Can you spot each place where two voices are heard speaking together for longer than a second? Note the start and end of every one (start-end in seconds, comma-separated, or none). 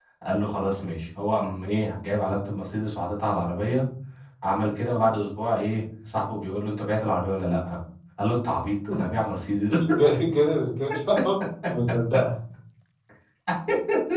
none